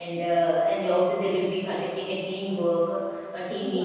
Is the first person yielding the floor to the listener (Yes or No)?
No